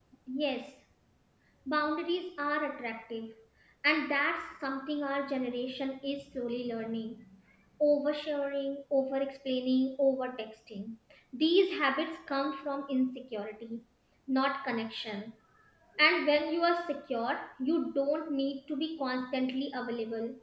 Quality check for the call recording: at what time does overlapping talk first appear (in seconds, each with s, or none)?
none